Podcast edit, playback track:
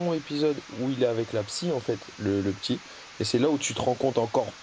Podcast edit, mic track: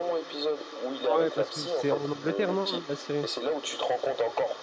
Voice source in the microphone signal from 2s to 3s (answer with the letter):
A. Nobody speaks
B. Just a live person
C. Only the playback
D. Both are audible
D